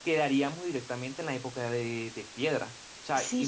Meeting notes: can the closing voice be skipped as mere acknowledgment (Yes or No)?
Yes